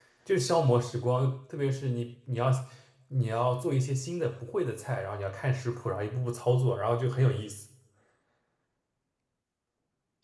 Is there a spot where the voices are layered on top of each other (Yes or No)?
No